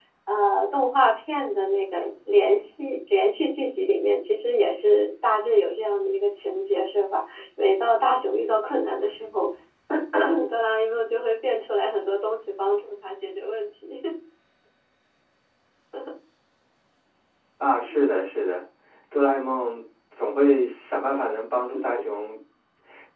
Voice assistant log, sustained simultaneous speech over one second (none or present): none